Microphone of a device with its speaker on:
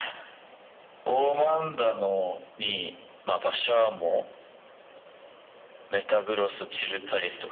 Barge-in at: none

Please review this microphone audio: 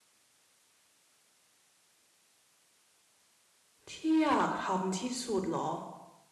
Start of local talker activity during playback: 3.9 s

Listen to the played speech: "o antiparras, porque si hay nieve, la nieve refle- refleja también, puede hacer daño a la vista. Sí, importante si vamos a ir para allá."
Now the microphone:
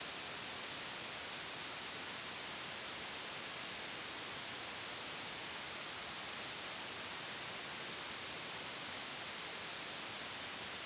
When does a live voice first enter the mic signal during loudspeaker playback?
none

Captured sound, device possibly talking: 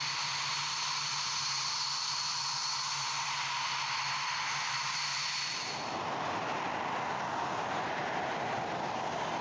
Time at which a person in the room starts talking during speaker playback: none

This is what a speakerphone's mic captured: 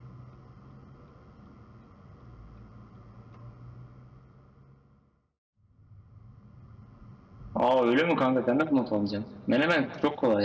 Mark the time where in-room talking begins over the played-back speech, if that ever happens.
7.5 s

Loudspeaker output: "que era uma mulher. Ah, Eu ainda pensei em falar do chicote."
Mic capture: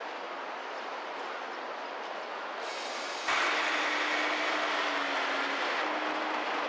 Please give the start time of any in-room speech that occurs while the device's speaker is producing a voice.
none

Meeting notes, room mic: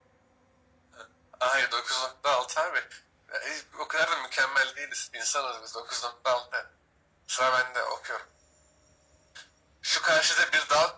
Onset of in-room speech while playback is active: none

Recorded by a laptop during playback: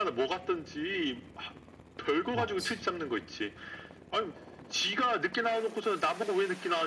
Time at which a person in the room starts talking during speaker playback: 2.3 s

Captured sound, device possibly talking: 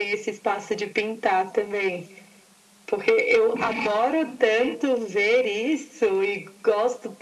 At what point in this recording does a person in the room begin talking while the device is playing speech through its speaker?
none

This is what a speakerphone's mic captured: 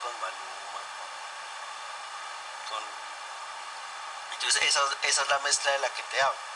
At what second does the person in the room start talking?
none

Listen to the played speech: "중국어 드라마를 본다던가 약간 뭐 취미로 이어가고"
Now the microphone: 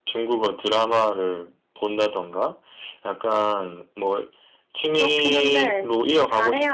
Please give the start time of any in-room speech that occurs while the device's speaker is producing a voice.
5.0 s

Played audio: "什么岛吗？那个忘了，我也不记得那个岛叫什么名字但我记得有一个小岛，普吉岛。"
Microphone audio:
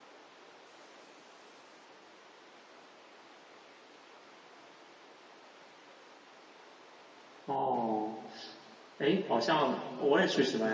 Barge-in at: 7.4 s

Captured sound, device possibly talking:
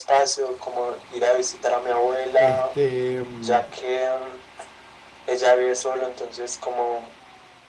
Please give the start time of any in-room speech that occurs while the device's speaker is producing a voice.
2.4 s

